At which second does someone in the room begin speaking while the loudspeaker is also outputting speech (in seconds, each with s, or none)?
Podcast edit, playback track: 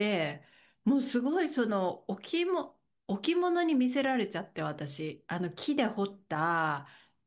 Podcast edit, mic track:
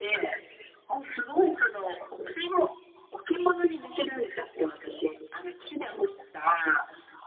none